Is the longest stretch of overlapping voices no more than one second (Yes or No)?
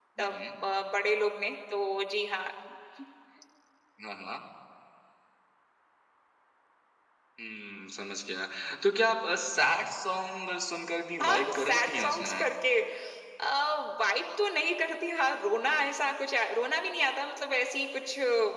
No